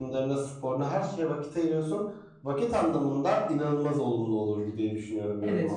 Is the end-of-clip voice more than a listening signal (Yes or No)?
Yes